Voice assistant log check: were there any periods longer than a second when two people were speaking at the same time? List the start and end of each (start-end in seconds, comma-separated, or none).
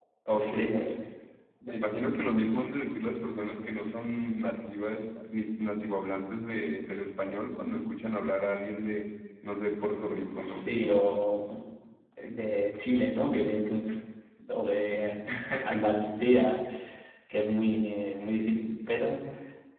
none